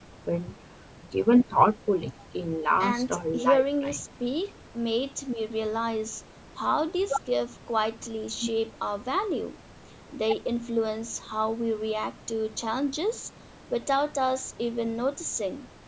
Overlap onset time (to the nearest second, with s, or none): 3 s